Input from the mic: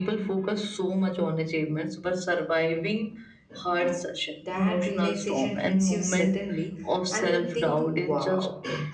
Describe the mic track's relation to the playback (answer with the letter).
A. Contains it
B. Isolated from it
A